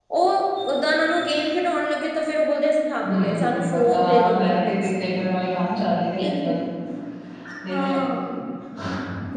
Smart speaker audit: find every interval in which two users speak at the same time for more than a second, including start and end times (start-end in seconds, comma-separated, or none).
3.0-4.9